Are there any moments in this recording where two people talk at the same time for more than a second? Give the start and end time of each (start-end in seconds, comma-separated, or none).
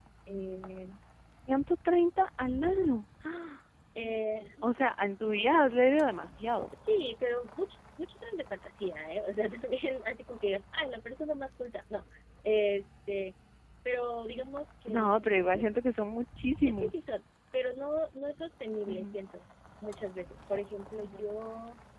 none